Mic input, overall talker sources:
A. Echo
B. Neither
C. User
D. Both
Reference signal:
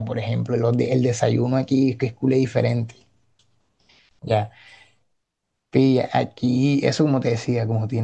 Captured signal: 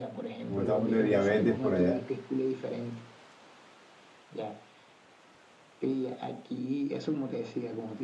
D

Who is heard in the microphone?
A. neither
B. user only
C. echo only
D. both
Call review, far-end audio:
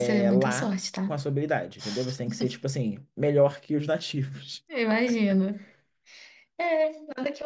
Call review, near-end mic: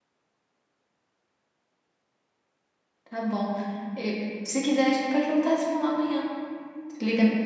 B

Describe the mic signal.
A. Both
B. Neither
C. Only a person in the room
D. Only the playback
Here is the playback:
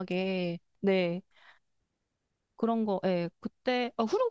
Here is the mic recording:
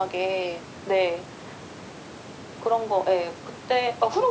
D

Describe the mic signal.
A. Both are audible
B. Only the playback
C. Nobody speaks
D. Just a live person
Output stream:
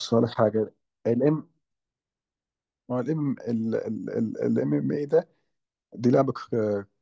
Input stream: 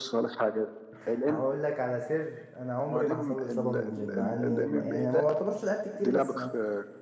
A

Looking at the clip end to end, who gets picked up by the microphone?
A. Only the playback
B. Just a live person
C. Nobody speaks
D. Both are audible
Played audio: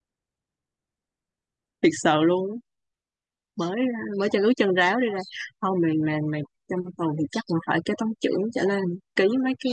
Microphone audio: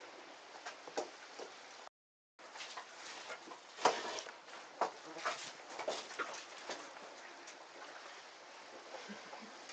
C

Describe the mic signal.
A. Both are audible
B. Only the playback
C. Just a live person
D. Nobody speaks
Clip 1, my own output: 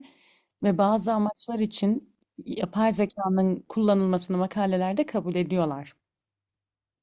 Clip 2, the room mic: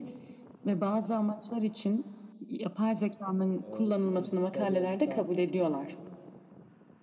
A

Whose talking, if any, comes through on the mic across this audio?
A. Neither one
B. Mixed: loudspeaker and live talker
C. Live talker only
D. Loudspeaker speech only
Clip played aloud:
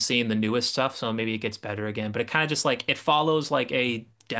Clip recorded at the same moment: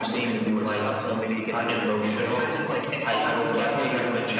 B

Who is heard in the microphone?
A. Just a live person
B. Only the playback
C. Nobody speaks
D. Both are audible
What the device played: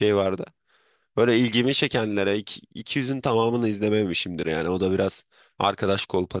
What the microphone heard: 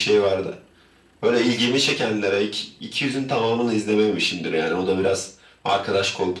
B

